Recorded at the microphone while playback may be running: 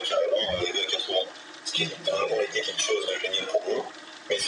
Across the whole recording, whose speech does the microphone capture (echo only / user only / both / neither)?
both